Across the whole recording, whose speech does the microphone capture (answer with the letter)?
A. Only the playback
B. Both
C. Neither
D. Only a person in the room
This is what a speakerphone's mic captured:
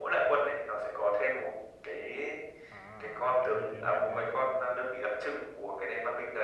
B